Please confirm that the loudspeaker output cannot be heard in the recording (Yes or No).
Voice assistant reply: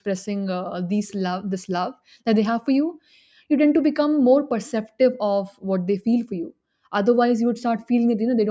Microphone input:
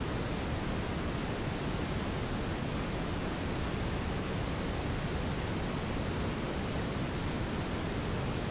Yes